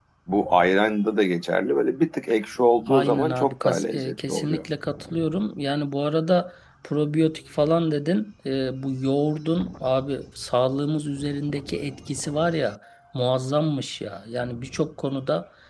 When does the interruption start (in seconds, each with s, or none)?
2.9 s